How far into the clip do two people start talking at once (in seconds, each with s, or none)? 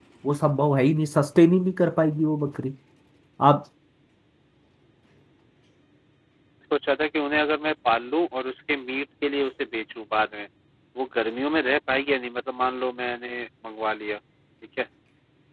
none